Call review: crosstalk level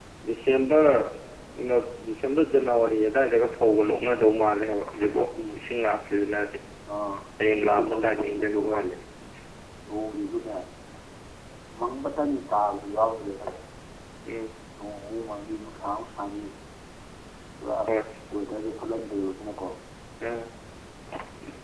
present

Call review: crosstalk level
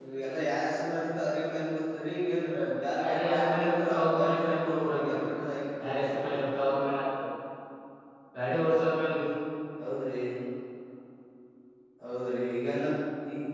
present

